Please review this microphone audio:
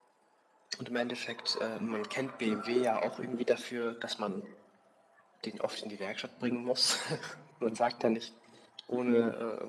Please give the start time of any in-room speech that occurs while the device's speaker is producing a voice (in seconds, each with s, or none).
none